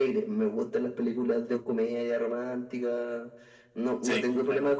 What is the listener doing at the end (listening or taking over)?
listening